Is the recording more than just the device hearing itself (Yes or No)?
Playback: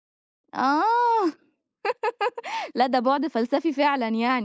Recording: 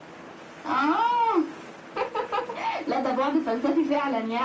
No